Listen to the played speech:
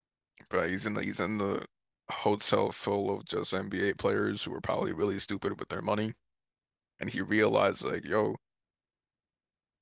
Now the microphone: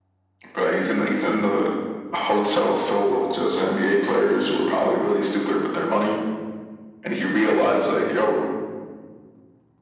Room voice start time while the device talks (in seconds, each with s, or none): none